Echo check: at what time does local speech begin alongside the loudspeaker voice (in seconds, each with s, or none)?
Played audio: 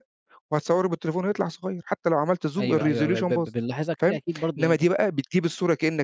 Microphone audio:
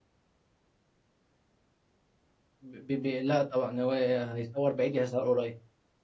2.6 s